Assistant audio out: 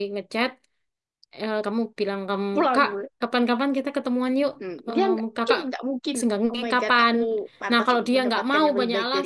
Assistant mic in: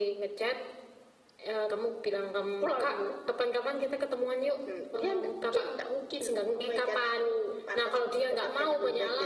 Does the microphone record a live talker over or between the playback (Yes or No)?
No